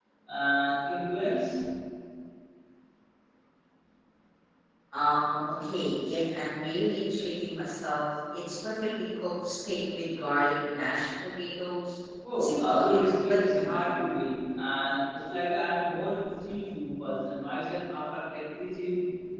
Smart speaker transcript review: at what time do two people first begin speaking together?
12.4 s

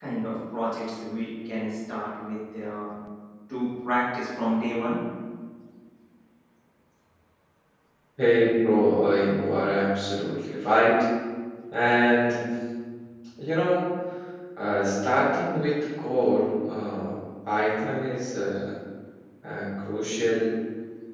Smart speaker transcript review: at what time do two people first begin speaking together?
none

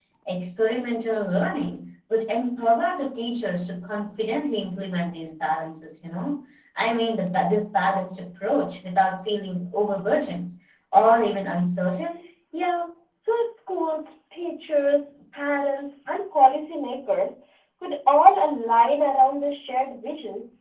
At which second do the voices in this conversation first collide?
none

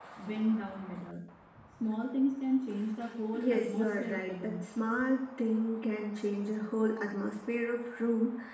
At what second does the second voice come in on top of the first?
3.3 s

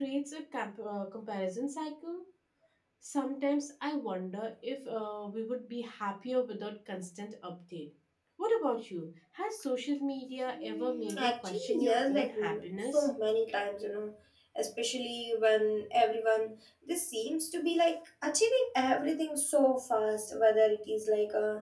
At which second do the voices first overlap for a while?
10.6 s

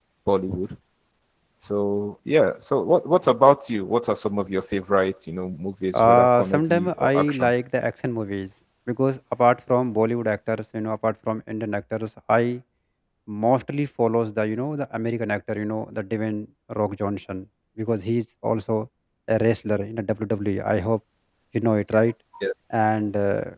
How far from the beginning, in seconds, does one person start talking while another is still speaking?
5.9 s

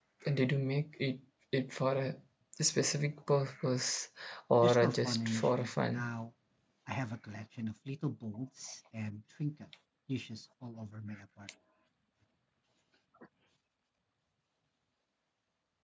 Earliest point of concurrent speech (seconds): 4.6 s

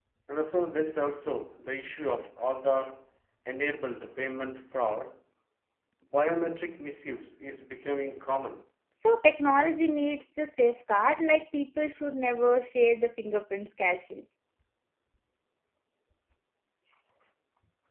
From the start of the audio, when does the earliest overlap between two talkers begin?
none

